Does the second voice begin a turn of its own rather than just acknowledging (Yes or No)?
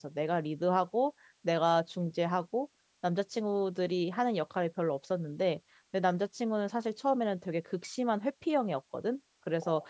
No